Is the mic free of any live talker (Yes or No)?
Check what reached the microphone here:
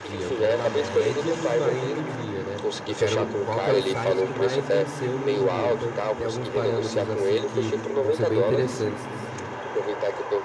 No